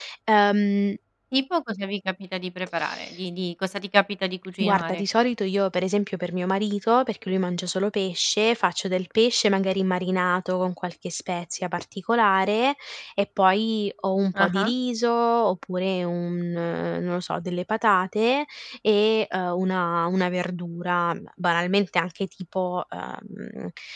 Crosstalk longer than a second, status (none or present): none